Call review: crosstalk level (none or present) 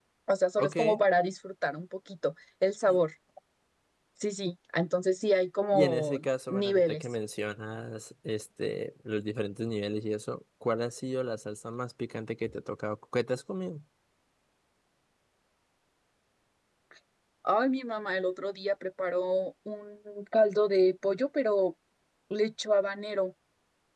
present